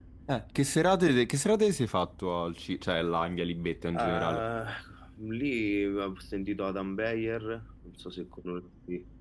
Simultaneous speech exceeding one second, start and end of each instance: none

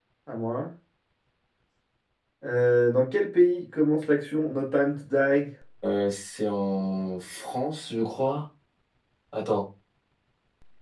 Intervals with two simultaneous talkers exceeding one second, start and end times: none

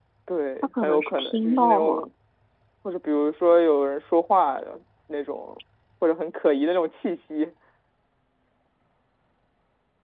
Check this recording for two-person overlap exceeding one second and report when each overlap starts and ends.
0.8-2.0

